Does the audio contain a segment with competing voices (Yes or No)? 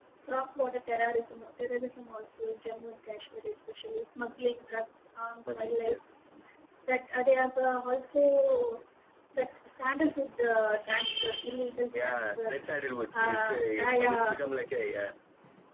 Yes